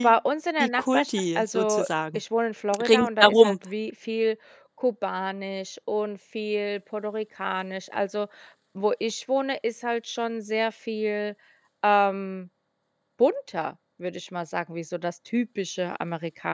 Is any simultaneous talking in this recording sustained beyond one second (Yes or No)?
Yes